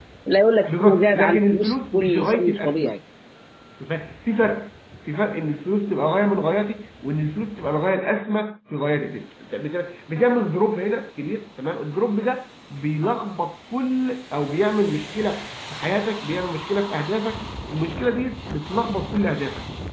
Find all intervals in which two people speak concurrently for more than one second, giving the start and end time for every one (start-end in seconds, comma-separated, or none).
0.7-2.9